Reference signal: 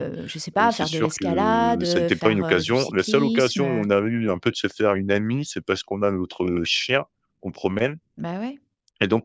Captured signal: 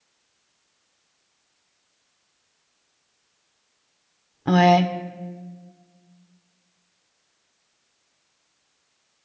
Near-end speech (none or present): present